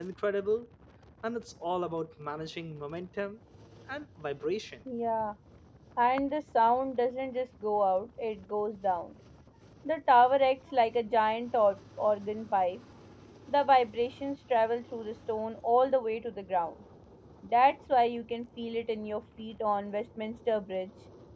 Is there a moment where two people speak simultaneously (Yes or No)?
No